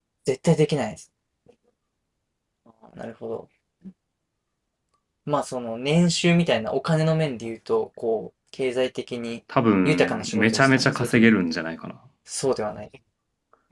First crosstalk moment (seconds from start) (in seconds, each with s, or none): 9.8 s